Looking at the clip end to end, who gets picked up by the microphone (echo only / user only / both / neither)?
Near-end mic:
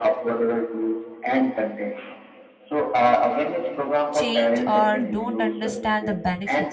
both